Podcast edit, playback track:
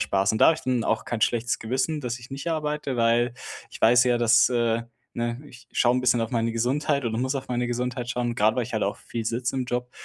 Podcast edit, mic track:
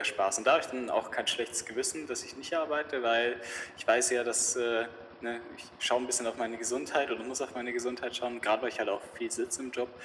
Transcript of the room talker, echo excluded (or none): none